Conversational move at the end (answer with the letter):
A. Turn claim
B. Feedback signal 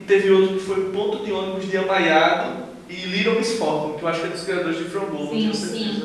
A